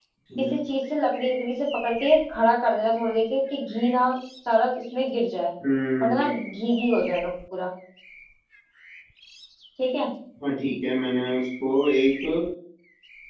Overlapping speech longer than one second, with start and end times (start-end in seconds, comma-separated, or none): none